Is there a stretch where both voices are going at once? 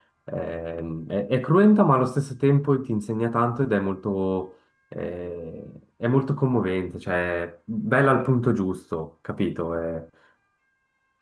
No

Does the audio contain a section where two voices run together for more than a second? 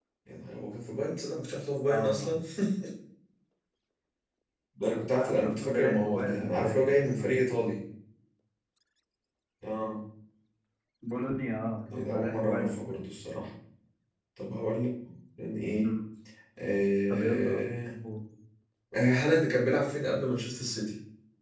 Yes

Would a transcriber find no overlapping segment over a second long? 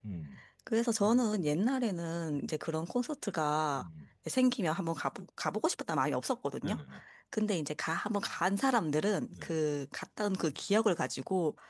Yes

